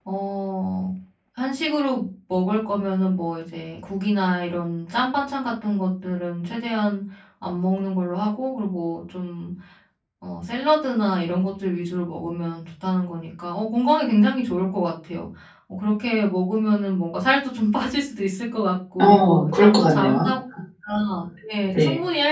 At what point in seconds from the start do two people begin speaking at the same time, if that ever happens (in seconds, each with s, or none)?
19.0 s